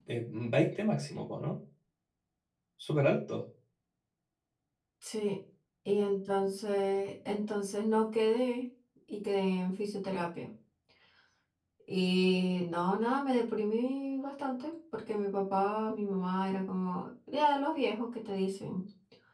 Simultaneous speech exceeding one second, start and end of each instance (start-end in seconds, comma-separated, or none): none